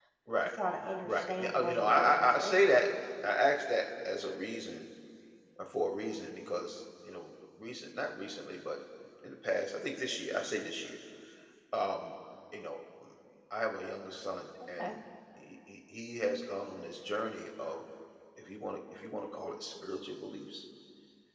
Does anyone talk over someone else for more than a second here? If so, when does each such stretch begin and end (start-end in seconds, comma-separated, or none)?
1.0-2.9